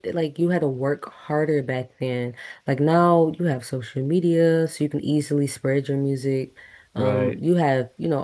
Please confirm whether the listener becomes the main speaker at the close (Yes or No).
No